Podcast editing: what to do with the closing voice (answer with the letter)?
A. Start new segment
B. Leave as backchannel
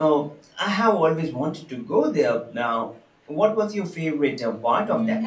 A